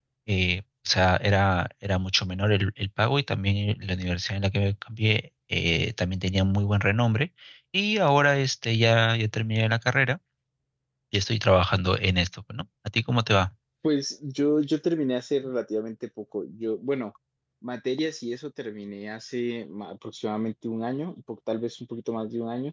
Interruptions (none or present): none